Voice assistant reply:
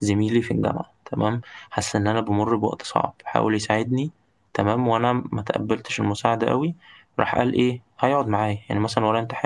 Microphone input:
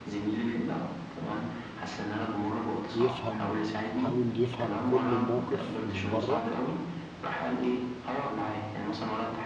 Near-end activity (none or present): present